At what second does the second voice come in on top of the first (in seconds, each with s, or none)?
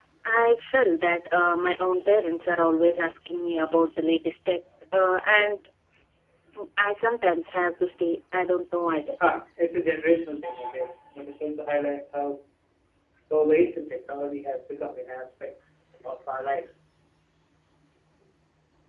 none